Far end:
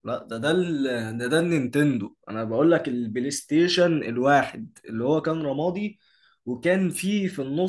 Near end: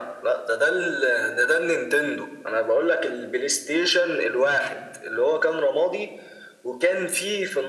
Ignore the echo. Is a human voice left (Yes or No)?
No